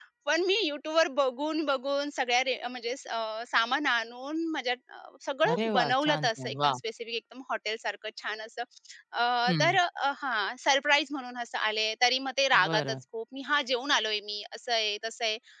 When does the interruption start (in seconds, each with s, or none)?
5.5 s